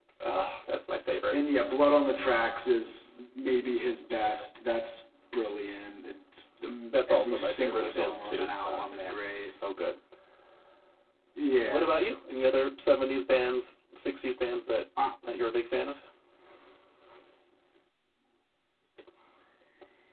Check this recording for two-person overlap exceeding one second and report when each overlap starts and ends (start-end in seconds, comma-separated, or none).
6.9-9.5